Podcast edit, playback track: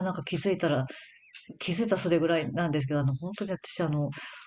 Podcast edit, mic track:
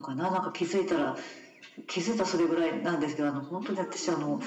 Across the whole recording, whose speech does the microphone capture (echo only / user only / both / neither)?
both